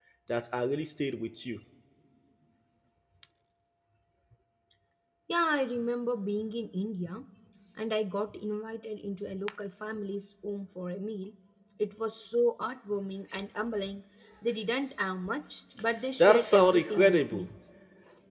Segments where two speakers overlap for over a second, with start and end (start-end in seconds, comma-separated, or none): 16.2-17.5